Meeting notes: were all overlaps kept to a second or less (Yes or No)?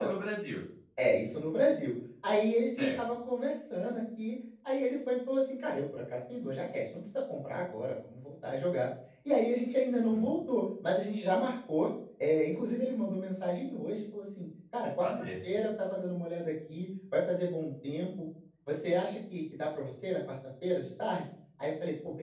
Yes